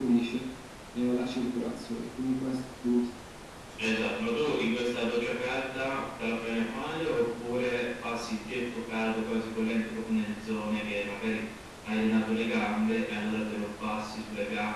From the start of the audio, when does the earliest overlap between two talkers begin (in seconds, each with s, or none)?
none